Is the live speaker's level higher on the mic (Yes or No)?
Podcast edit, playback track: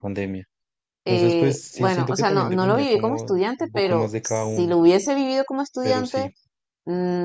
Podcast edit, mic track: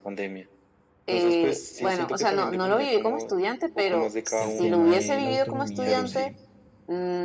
No